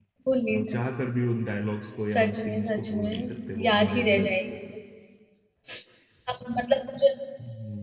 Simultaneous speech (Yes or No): Yes